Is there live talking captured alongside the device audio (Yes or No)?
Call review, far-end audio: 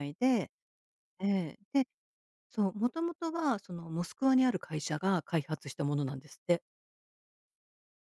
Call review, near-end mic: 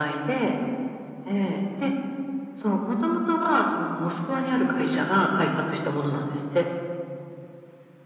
No